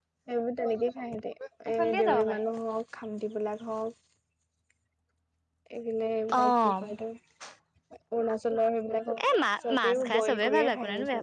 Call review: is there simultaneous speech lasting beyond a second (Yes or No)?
Yes